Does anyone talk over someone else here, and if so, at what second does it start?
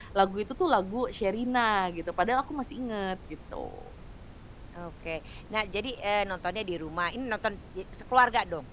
none

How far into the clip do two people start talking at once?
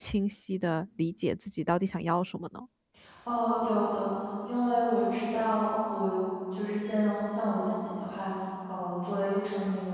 none

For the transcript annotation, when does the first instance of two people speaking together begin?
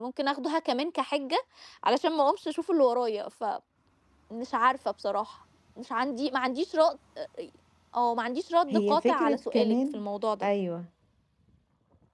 8.7 s

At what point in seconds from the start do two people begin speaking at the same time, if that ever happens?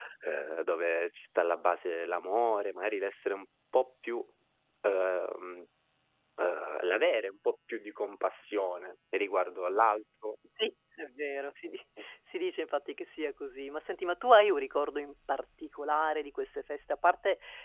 none

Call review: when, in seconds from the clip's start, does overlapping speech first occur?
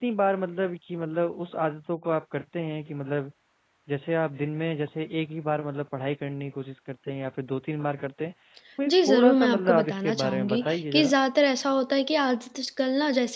8.9 s

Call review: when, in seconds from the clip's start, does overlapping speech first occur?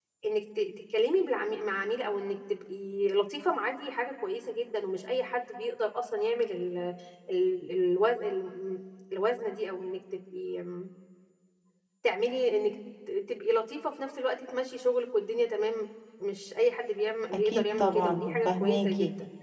17.5 s

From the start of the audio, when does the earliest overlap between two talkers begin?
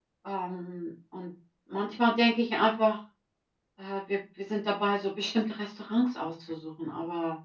none

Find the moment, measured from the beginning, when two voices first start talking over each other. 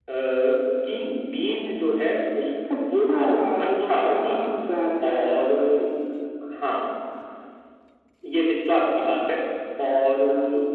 2.9 s

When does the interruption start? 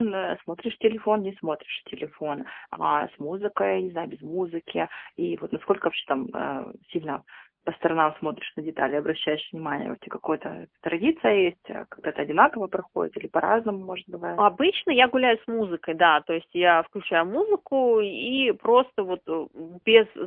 none

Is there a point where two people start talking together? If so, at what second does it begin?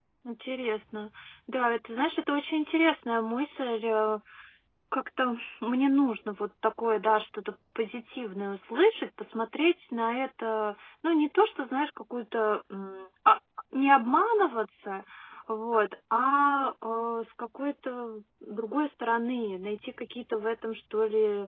none

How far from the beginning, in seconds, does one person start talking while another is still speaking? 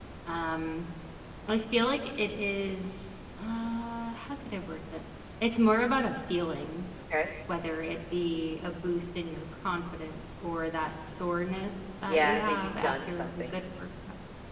12.1 s

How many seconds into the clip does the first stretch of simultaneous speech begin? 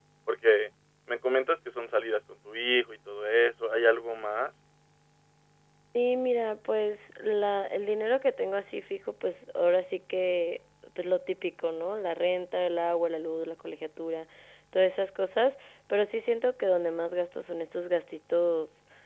none

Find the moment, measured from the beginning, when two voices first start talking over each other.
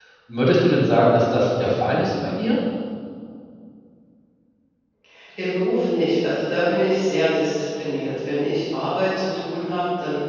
none

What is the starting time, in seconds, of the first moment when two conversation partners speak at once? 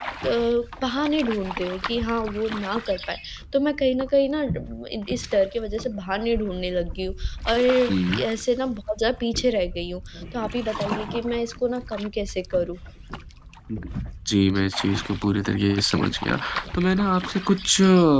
none

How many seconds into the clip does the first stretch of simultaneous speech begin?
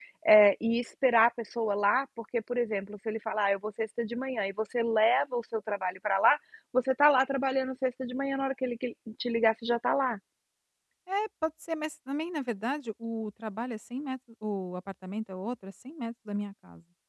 none

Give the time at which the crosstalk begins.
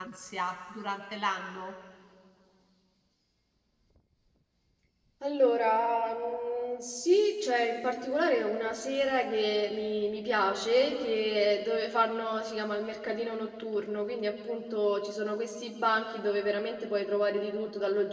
none

